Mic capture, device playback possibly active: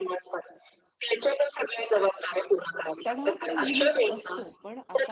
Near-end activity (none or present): present